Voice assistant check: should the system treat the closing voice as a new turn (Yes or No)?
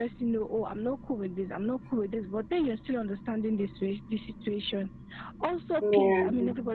No